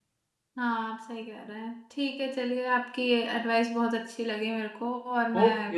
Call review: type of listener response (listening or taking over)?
taking over